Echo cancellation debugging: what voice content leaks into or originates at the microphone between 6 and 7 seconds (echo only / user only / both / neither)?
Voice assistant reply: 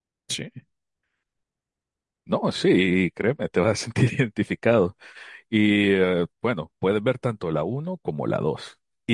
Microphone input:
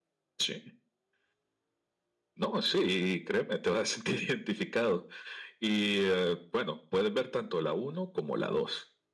echo only